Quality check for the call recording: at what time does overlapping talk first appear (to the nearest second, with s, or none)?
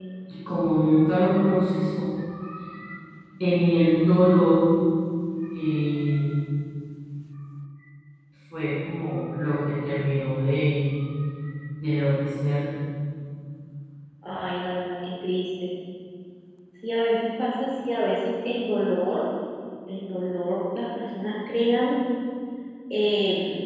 none